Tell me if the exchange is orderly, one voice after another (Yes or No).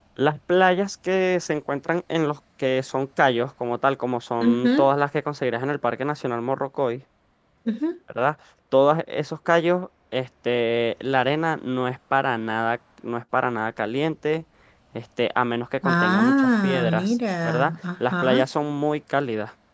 No